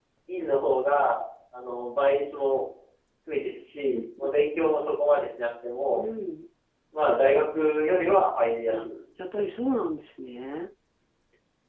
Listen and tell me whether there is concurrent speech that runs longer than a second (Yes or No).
No